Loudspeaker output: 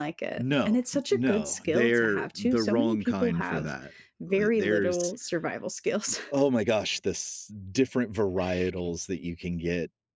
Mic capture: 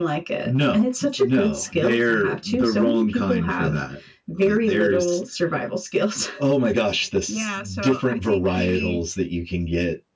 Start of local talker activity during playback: 7.2 s

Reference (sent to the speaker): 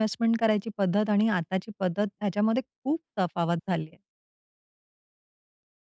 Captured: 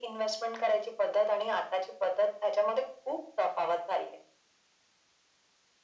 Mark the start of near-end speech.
none

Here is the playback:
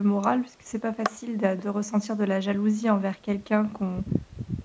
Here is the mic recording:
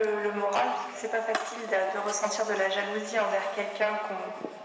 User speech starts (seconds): none

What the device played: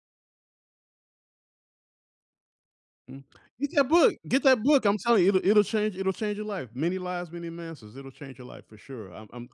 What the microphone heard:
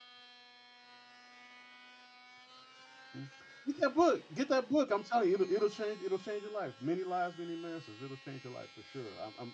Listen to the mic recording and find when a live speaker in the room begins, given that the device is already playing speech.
none

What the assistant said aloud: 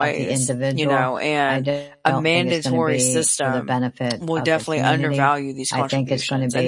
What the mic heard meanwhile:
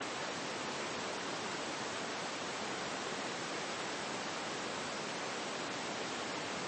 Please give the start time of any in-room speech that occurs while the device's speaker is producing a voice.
none

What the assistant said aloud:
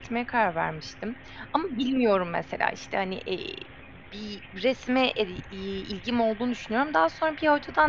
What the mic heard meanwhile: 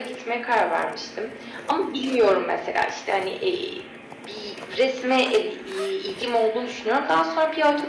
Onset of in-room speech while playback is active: none

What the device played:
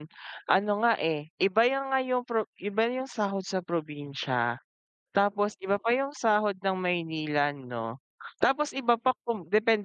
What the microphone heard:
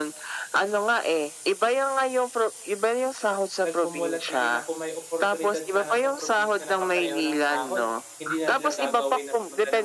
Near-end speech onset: 3.6 s

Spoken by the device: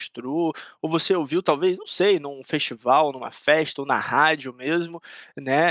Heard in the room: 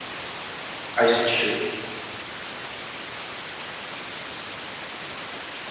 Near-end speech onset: 0.9 s

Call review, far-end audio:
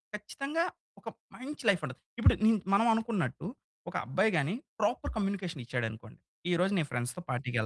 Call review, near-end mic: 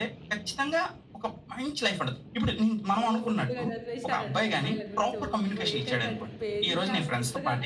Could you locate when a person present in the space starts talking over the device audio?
3.0 s

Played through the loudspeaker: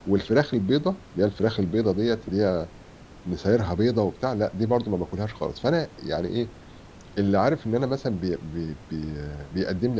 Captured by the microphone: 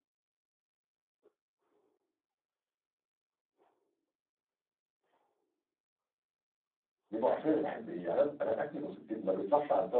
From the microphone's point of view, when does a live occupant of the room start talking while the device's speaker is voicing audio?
7.1 s

